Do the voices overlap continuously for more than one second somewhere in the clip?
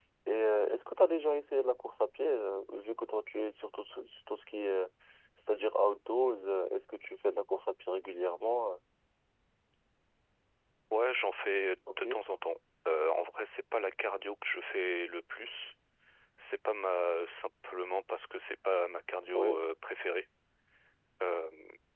No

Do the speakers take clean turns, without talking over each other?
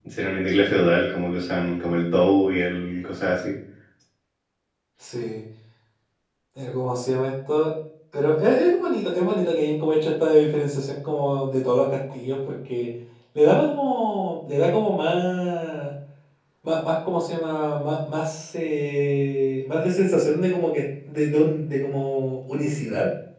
Yes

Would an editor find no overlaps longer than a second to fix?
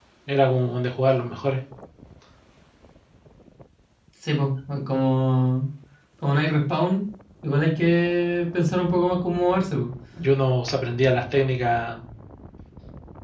Yes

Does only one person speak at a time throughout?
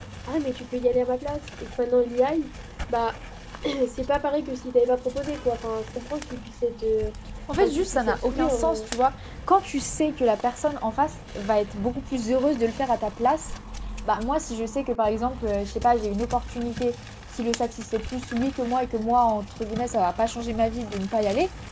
No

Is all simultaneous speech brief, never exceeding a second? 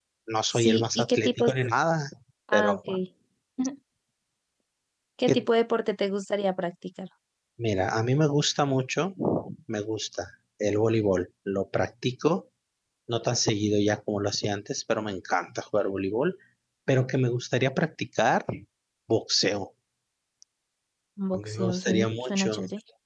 No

